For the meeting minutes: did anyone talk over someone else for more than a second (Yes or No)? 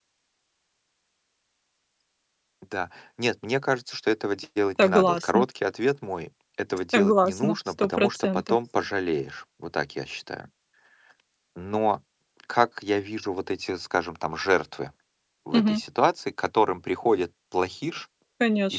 Yes